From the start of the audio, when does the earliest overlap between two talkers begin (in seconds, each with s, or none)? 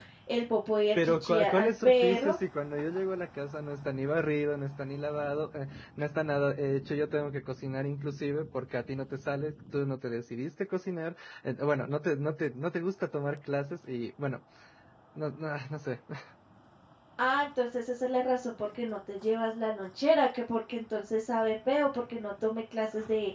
0.9 s